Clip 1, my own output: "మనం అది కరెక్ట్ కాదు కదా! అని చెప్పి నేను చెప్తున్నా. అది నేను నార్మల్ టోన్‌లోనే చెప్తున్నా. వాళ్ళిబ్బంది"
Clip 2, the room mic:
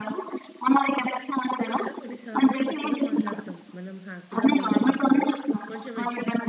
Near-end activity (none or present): present